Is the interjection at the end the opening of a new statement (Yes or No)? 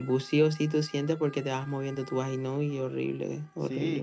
Yes